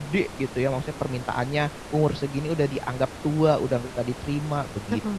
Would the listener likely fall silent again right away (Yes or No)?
No